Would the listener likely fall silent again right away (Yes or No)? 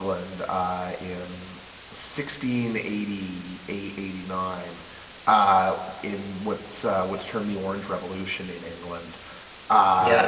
No